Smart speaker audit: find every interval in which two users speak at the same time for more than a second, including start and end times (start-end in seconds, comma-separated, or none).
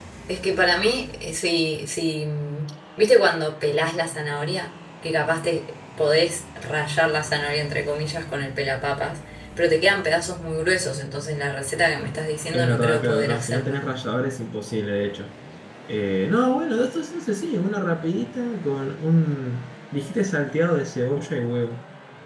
12.5-13.8